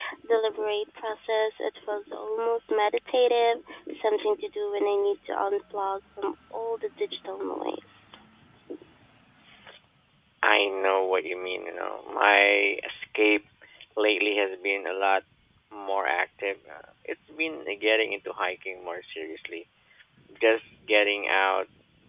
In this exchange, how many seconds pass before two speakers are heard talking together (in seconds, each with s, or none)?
none